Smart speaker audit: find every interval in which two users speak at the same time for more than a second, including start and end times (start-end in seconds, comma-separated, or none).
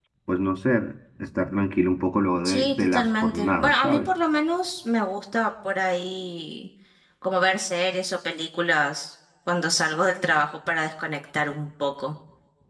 2.4-4.1